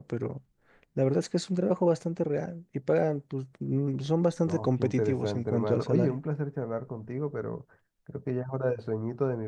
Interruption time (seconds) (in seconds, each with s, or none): 4.5 s